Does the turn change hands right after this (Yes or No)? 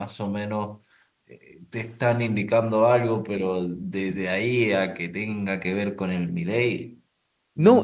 Yes